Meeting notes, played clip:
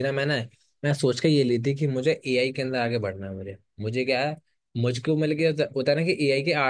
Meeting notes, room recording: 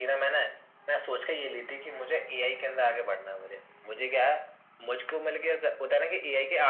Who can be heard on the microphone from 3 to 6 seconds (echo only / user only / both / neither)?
echo only